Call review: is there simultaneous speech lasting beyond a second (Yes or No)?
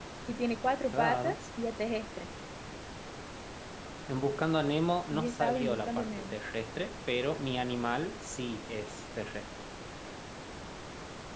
Yes